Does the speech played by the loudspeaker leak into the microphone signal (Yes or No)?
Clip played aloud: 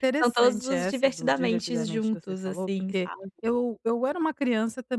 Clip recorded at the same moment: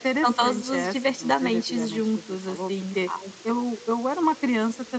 Yes